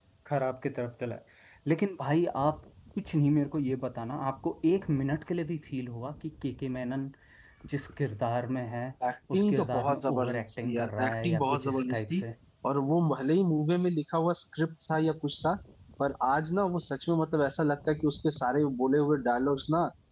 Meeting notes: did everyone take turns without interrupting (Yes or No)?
No